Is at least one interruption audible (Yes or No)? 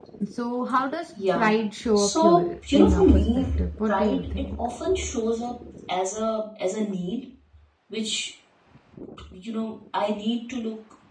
Yes